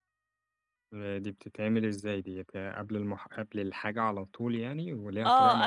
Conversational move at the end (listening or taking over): taking over